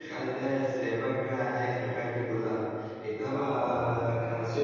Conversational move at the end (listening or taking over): listening